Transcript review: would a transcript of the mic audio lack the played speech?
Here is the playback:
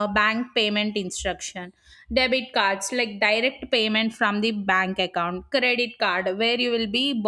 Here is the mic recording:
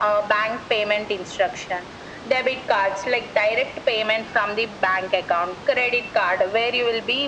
No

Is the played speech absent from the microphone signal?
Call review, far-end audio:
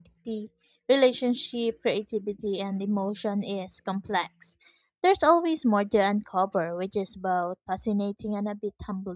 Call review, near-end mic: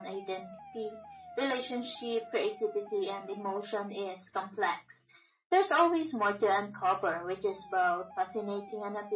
No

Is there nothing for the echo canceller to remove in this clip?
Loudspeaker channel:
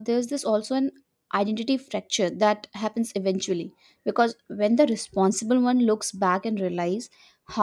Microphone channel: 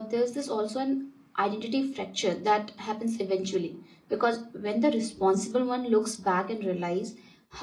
No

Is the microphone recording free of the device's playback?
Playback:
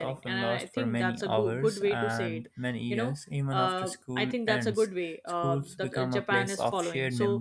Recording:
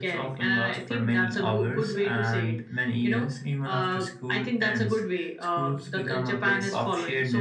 No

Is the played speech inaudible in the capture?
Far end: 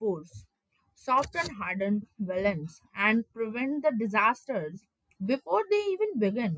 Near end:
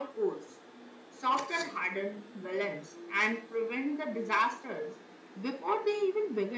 No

